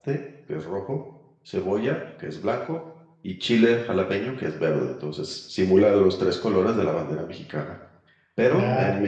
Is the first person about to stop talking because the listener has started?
No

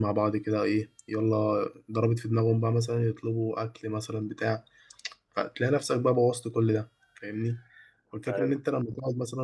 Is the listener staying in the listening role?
Yes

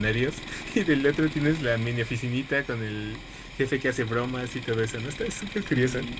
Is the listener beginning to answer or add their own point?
Yes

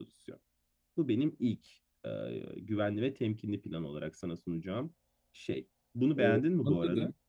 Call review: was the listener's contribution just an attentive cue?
No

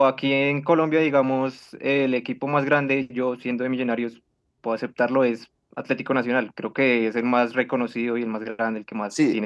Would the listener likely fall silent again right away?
No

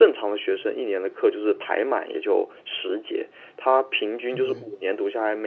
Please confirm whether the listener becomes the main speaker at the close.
No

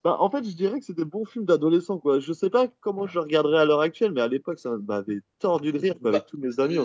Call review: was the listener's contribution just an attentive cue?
No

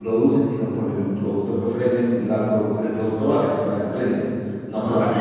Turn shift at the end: Yes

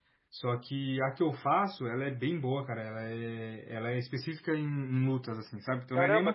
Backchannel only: Yes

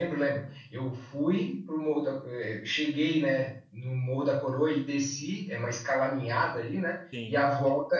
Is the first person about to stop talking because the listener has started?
No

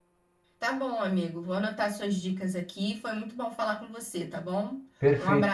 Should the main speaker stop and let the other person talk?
Yes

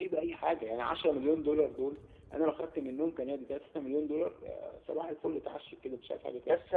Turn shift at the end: Yes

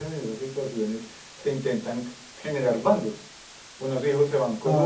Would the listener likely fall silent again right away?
Yes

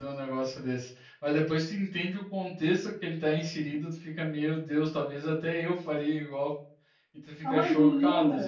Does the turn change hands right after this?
Yes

